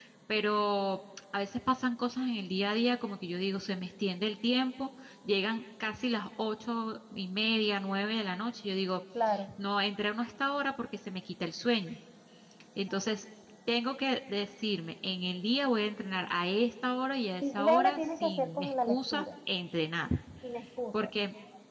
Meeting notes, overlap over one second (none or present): present